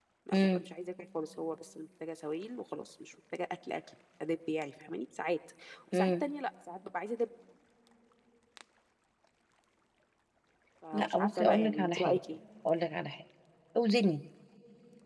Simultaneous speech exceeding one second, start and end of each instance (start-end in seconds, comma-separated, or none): 10.9-12.2